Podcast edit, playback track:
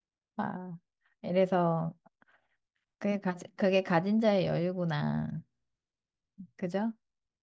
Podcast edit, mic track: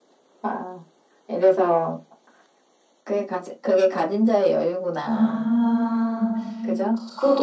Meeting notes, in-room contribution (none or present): present